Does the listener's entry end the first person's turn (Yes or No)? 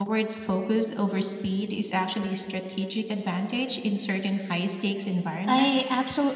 Yes